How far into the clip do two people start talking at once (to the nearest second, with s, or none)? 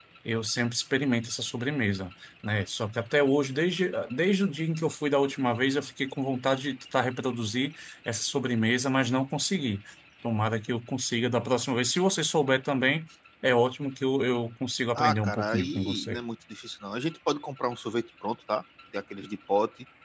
15 s